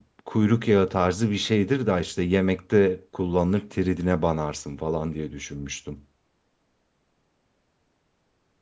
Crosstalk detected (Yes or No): No